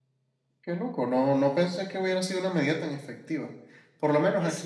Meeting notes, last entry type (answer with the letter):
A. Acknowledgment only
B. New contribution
A